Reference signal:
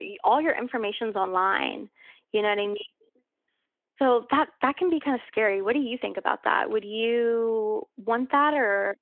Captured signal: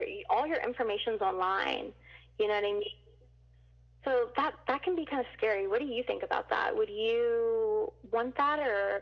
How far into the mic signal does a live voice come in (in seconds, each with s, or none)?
none